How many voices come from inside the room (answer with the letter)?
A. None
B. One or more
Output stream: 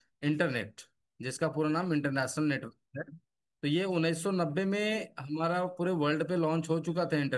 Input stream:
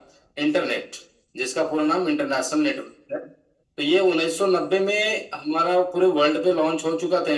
A